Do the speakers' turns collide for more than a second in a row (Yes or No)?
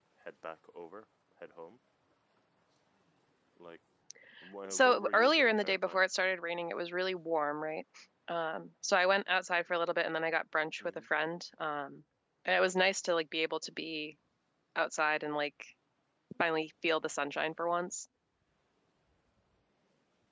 Yes